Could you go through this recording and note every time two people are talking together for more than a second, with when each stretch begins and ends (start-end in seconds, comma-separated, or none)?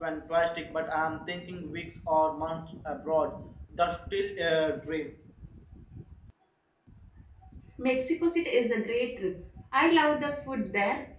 none